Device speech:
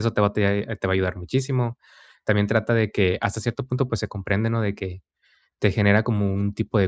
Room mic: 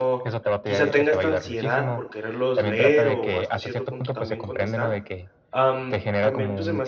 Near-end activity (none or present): present